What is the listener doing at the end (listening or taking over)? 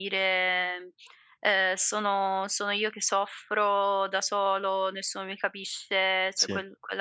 listening